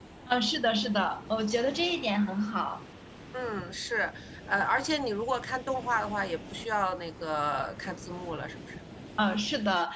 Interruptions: none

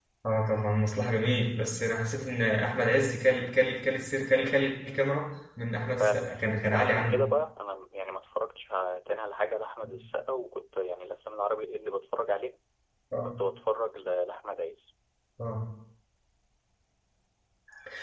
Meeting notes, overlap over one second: present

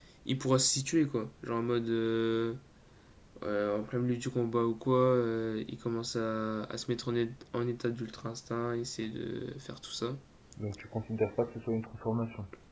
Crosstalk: none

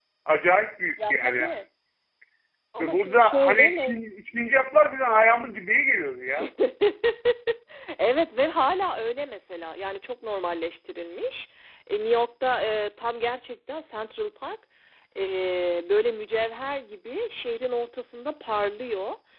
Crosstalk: present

